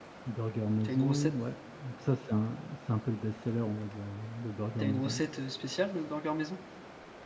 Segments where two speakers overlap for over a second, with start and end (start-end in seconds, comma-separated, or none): none